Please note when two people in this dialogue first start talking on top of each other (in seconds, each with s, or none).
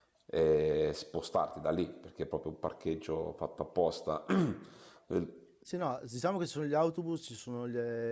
none